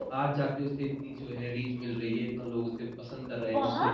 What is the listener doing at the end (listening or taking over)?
taking over